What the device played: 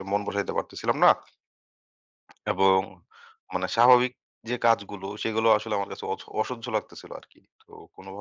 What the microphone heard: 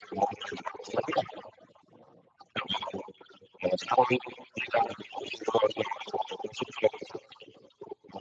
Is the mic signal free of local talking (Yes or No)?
Yes